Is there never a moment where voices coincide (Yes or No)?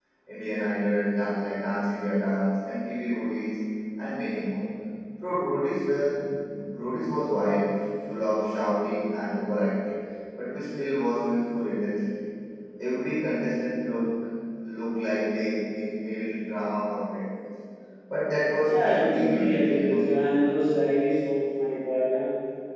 No